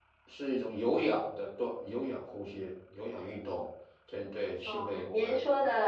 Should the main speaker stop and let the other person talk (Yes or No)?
Yes